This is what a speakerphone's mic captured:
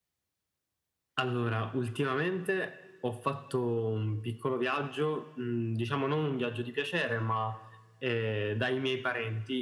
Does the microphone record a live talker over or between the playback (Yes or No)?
No